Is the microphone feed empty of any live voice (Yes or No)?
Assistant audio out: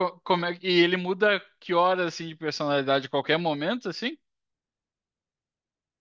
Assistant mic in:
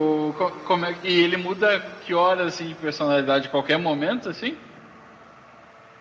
Yes